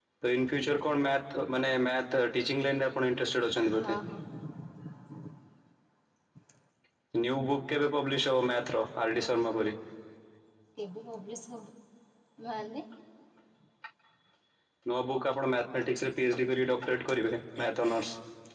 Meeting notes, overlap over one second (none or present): none